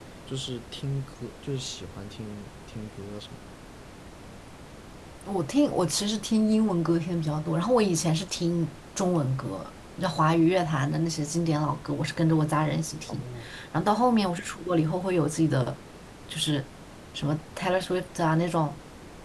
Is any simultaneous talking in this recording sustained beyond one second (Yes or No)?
No